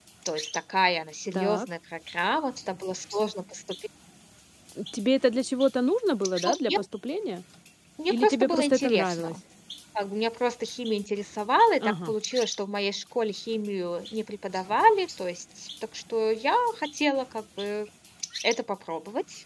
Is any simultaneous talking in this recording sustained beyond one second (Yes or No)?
Yes